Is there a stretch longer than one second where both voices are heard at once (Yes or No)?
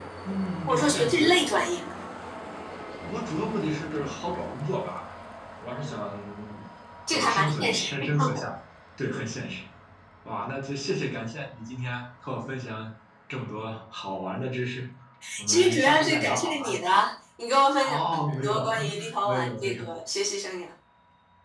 Yes